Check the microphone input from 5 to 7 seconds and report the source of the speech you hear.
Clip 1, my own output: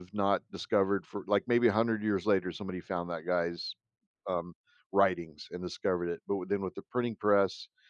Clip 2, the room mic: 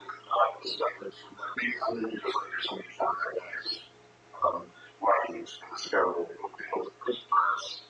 echo only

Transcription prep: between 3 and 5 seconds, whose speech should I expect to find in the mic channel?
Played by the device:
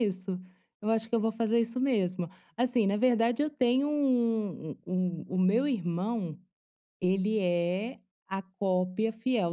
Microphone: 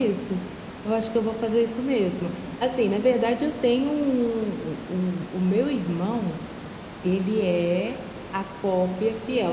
echo only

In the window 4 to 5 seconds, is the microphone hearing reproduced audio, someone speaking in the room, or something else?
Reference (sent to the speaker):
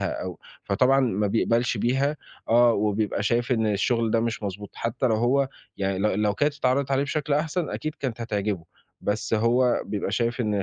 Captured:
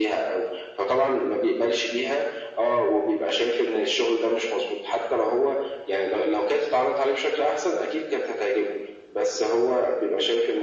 echo only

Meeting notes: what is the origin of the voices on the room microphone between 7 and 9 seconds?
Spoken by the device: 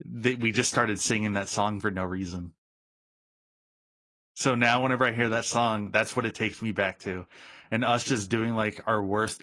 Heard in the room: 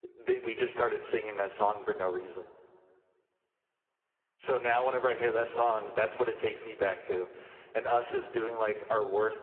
echo only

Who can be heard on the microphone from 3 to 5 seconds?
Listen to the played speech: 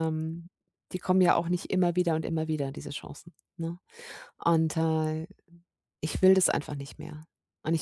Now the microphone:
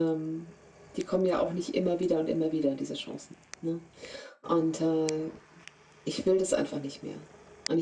echo only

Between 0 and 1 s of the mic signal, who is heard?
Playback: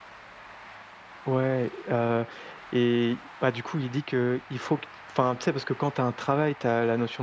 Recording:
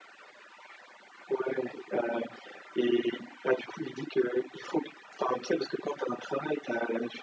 neither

